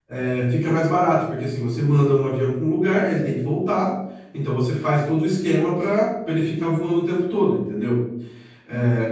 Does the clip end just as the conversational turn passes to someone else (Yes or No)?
No